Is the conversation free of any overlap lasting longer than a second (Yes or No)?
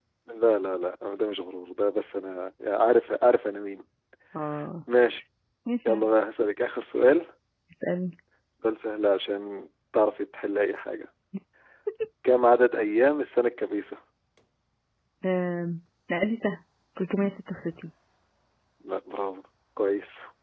Yes